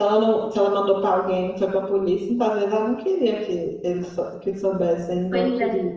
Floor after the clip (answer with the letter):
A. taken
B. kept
A